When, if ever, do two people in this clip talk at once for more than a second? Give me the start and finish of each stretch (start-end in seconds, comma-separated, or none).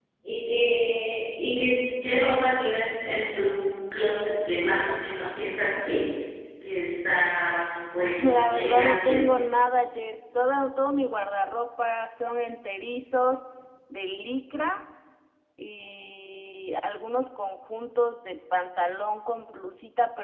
8.0-9.2